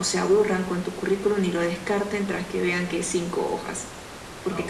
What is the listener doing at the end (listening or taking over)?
listening